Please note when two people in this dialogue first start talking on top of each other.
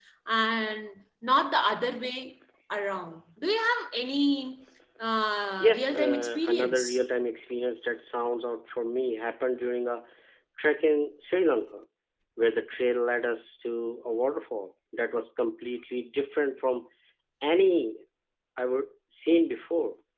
5.6 s

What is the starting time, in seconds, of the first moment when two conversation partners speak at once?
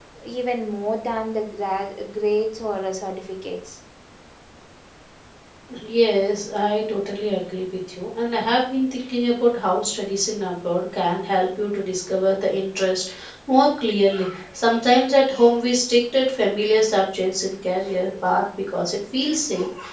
none

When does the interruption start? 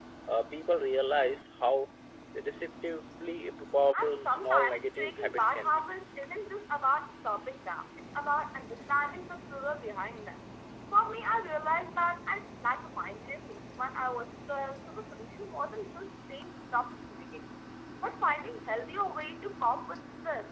3.9 s

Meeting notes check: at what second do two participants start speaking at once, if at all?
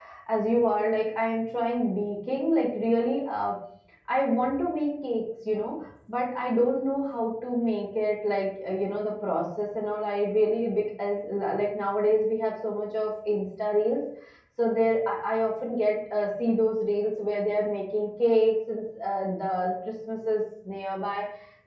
none

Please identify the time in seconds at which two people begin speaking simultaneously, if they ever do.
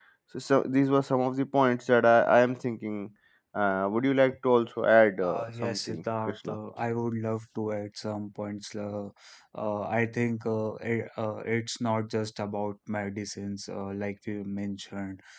5.2 s

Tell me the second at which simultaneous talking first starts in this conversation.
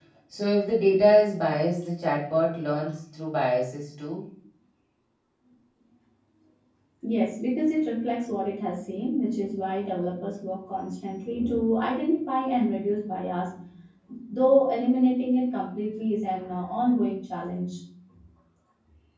none

